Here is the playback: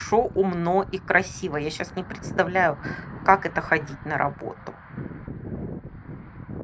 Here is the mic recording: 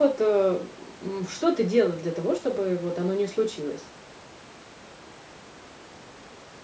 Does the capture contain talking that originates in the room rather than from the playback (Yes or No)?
Yes